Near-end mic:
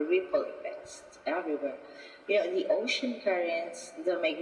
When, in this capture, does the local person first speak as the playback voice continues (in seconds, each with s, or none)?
none